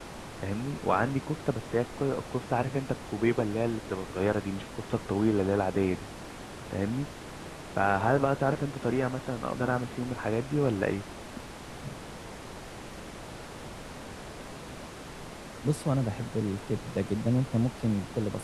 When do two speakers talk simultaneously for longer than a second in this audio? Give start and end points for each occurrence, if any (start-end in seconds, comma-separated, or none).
none